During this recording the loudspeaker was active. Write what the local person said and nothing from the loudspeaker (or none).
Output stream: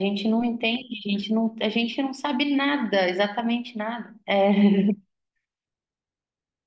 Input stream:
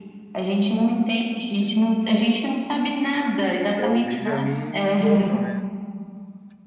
É o Benjamin Bolton, né?